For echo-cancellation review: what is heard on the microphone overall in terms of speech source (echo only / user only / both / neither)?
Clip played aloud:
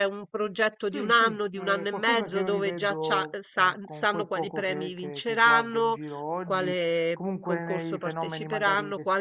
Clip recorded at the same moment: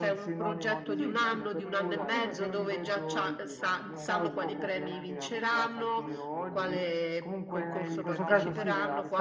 both